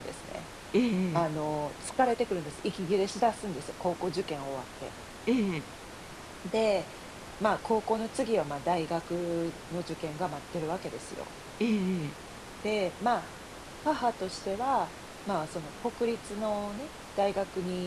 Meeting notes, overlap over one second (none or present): none